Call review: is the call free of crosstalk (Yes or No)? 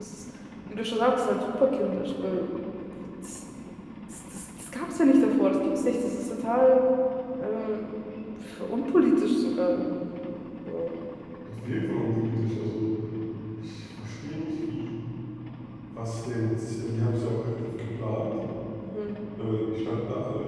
Yes